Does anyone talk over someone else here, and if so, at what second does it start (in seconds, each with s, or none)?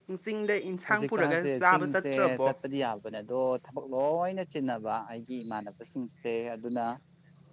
0.9 s